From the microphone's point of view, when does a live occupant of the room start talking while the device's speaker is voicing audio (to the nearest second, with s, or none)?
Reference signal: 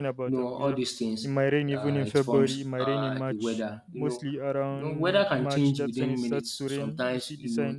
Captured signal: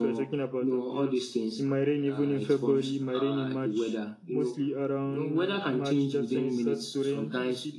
none